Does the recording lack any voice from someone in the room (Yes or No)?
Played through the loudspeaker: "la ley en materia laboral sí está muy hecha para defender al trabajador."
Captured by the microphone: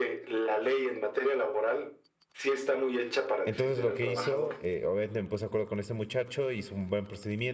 No